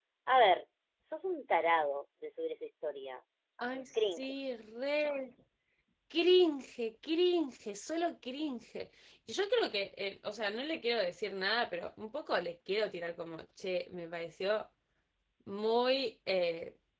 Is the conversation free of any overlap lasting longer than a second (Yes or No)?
Yes